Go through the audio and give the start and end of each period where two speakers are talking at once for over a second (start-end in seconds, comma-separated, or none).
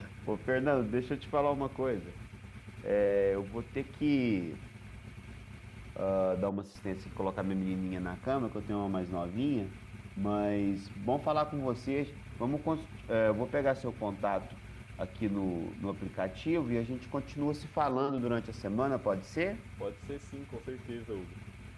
none